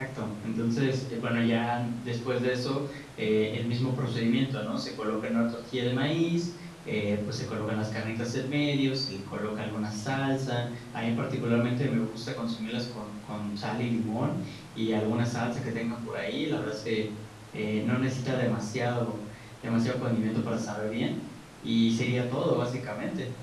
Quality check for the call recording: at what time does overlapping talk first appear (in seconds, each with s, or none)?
none